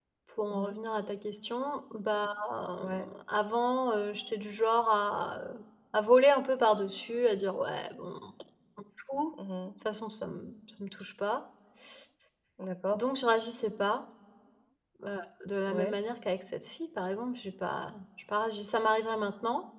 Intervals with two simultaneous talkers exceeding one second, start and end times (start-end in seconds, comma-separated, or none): none